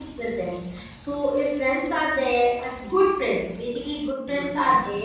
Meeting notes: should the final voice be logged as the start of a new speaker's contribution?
No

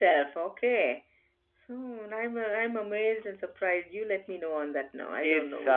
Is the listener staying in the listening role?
No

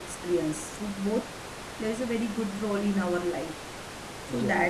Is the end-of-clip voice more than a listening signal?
No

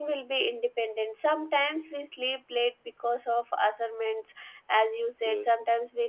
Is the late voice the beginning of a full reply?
No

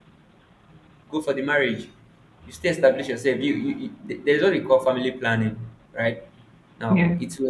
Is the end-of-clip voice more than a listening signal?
No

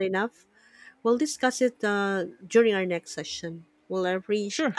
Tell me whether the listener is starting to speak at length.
No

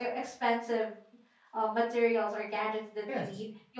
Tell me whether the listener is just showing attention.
Yes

